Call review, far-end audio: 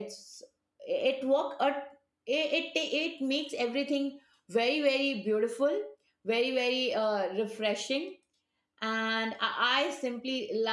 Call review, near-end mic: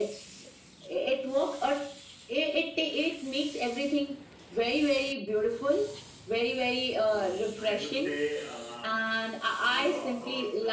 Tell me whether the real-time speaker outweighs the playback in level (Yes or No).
No